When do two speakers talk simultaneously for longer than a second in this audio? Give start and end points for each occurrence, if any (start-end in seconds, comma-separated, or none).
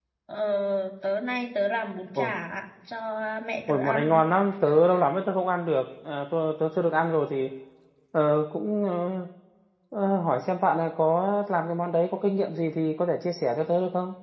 none